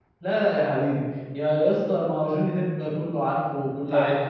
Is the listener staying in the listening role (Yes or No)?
No